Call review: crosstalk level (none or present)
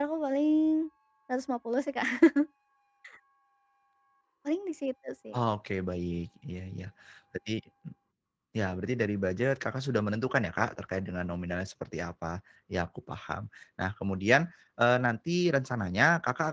none